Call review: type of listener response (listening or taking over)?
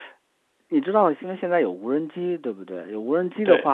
listening